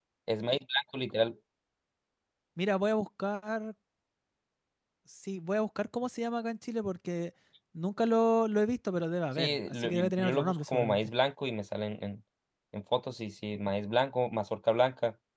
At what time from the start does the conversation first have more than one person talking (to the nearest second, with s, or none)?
9 s